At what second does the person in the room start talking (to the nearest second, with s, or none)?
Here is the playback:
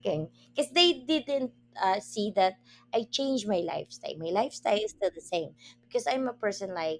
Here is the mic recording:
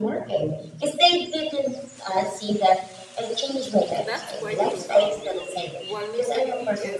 4 s